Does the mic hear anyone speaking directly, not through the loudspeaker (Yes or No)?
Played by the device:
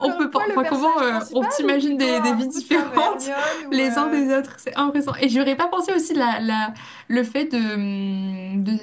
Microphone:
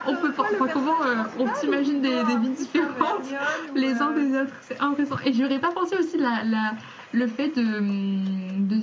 No